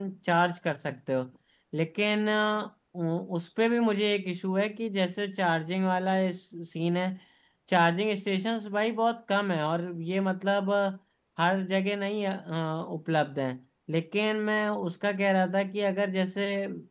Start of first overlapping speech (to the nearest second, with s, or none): none